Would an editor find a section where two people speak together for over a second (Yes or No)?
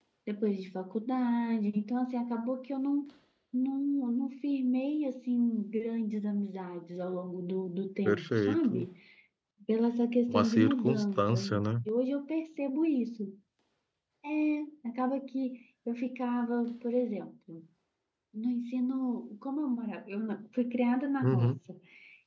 Yes